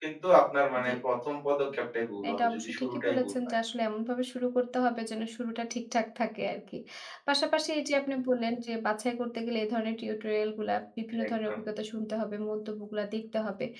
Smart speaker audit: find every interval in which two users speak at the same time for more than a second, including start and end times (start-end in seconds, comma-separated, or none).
2.3-3.5